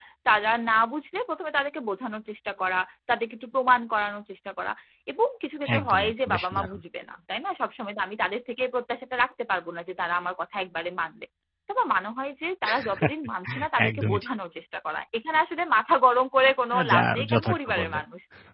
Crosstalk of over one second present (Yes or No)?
Yes